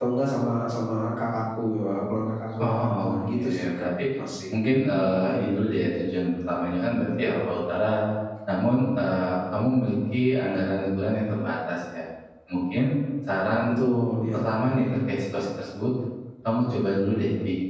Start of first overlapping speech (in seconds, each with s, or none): 2.6 s